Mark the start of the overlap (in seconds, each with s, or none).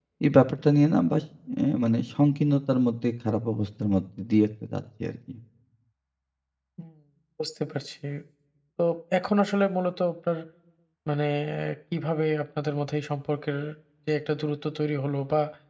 none